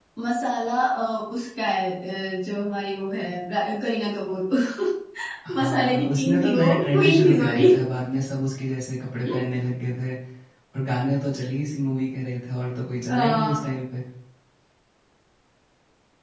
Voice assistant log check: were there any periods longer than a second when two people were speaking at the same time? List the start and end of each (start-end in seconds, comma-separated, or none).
5.6-7.7